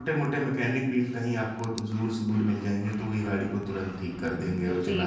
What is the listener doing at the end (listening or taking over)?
taking over